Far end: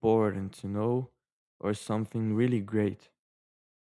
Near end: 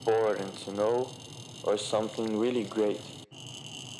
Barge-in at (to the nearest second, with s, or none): none